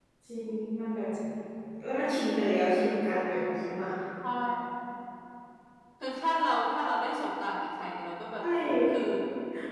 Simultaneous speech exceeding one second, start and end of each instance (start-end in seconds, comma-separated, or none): none